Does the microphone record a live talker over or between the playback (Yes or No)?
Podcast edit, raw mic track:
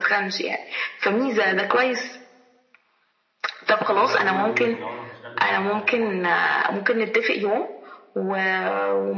Yes